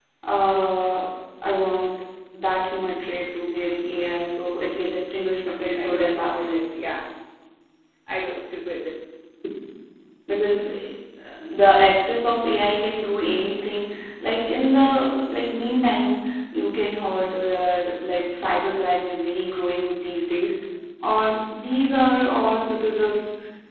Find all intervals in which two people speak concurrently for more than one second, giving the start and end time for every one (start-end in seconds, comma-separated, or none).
5.5-6.7